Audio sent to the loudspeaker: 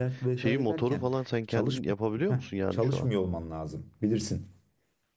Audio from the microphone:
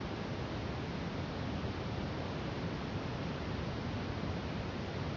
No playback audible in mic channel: Yes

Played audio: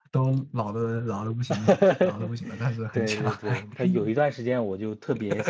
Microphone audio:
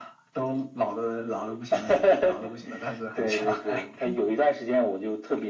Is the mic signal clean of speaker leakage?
No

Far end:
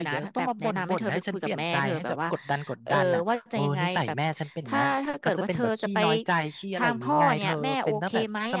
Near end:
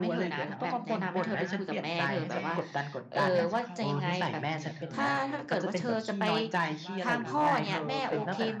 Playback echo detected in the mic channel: Yes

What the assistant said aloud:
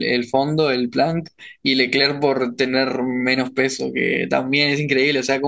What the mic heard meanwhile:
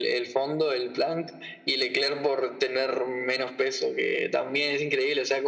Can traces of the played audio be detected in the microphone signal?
Yes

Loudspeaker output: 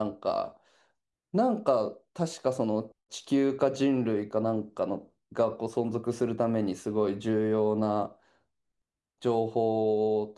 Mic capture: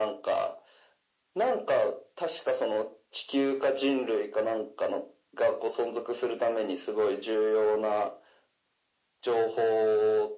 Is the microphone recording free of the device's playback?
No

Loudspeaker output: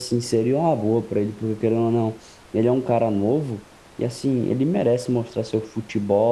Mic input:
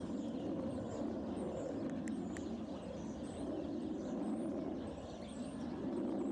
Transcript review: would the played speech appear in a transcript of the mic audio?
No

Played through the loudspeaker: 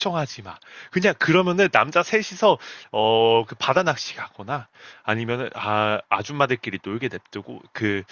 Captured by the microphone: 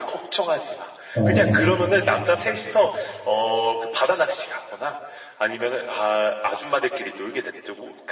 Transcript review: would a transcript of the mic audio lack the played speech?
No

